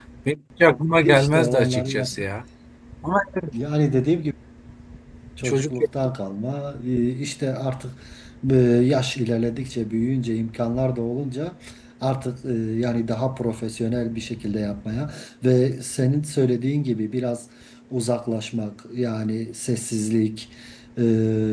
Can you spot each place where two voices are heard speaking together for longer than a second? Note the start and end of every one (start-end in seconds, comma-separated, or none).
0.9-2.3